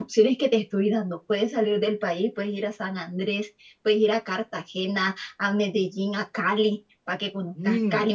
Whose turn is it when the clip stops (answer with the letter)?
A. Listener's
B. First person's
B